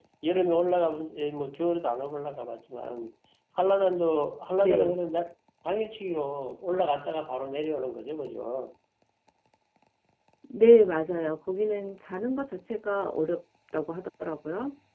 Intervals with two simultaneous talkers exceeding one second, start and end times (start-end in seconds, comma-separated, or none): none